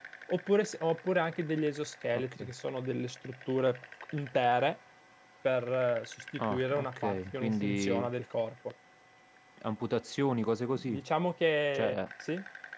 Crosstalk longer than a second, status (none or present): present